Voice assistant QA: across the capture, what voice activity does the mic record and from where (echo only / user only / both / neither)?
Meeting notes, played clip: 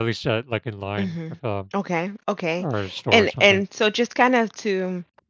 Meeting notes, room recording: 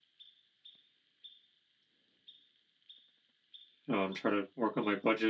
user only